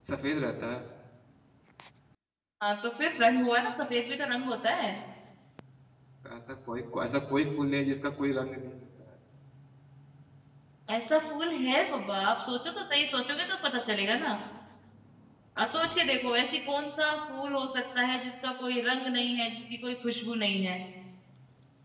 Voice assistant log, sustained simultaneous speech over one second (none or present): none